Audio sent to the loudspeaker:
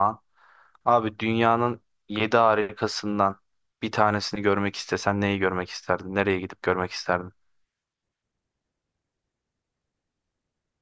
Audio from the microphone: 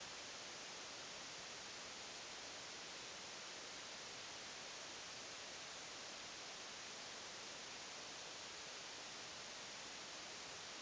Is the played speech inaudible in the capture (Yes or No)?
Yes